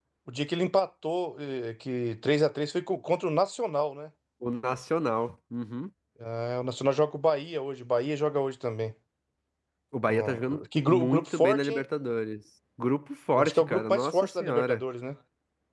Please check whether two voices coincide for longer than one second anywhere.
Yes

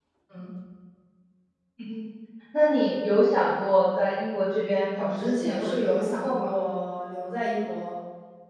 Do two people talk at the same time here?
Yes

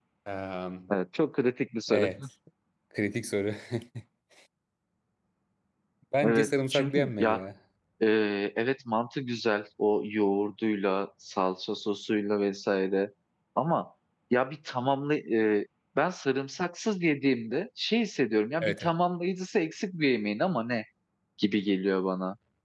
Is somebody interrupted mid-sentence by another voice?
Yes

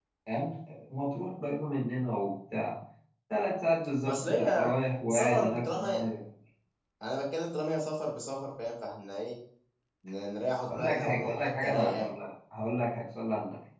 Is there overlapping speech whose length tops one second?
Yes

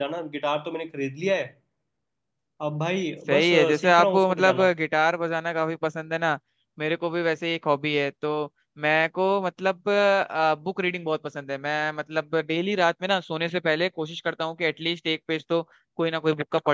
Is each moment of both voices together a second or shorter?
No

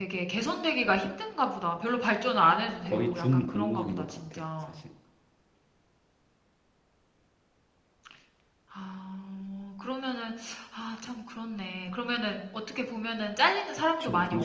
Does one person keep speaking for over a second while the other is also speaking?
Yes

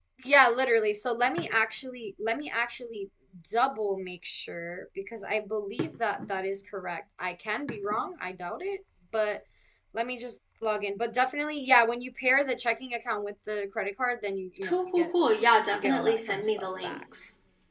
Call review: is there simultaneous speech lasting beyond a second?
Yes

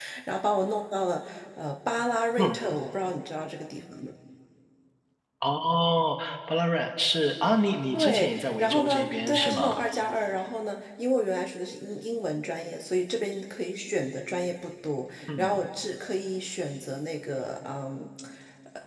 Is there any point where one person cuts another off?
Yes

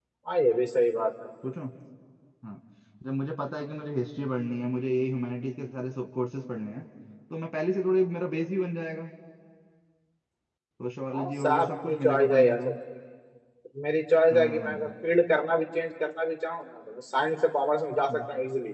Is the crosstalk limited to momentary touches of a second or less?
No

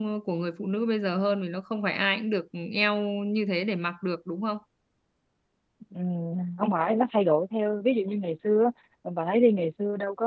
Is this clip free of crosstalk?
Yes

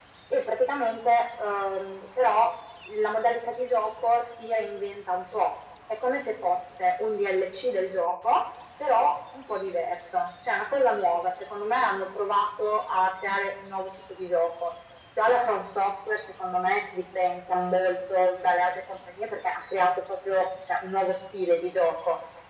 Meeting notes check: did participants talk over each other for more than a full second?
No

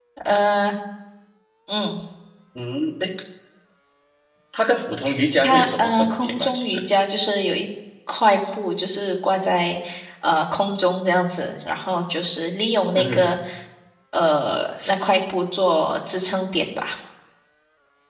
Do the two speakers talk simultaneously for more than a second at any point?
Yes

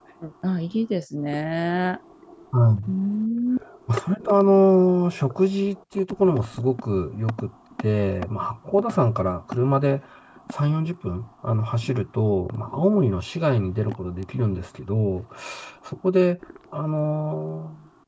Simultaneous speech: No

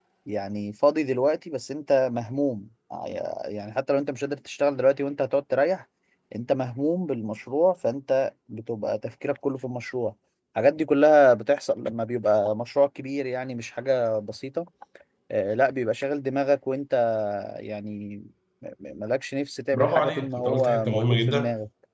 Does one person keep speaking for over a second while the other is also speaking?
Yes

